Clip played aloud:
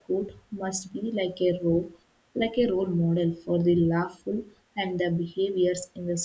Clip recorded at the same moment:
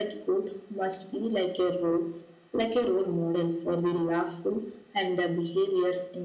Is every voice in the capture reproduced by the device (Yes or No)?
Yes